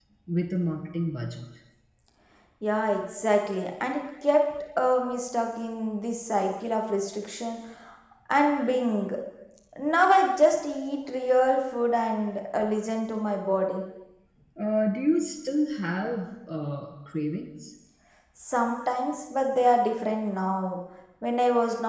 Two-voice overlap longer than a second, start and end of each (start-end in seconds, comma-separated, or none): none